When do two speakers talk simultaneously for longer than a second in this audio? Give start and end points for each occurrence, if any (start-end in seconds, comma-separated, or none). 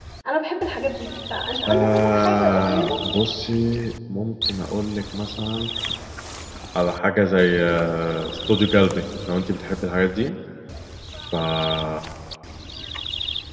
1.7-2.9